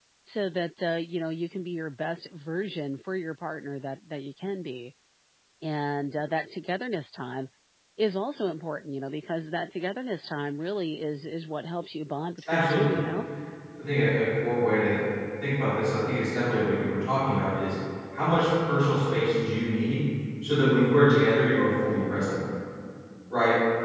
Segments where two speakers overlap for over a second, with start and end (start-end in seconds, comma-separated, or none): none